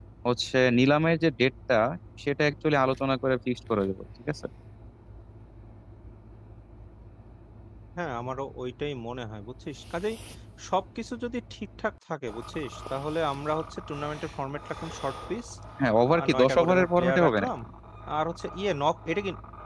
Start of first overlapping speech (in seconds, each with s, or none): 16.2 s